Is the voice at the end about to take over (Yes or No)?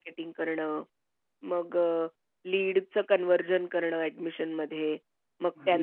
No